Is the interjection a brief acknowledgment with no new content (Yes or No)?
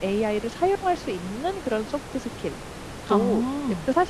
Yes